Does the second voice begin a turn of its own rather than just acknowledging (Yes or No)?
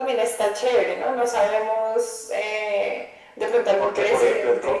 Yes